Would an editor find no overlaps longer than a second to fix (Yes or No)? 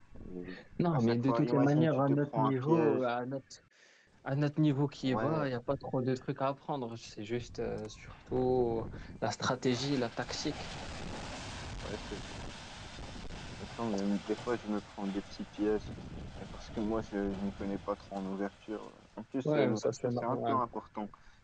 No